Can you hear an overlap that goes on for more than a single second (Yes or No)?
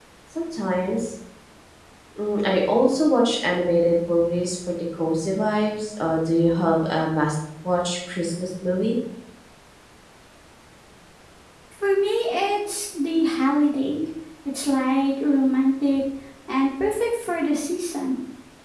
No